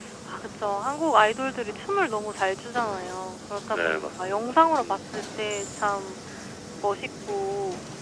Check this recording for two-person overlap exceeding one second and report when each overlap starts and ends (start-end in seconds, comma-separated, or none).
3.7-5.0